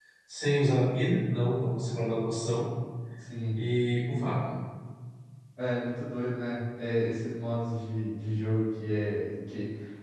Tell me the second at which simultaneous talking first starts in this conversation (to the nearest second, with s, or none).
none